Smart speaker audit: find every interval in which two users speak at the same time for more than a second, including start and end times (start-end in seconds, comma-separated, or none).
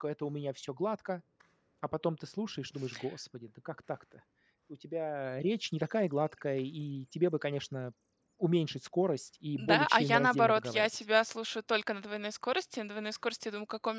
9.6-10.9